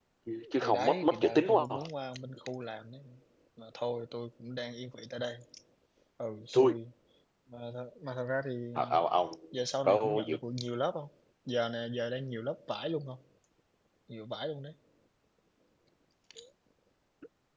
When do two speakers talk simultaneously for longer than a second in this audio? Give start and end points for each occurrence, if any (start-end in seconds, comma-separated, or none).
0.6-1.9